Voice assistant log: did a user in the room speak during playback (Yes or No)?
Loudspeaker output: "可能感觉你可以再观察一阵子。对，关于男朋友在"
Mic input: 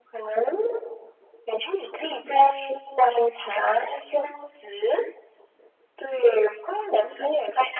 No